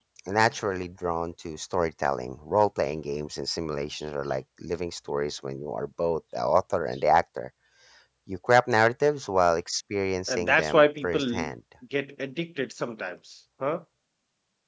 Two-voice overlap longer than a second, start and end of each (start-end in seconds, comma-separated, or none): 10.3-11.5